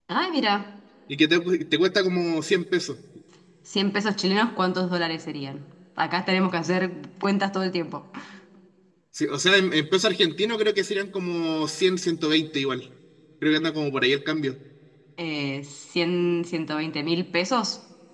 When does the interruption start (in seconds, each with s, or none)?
none